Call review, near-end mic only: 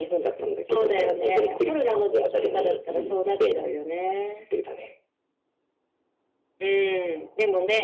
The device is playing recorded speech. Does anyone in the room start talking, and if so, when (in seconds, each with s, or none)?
2.8 s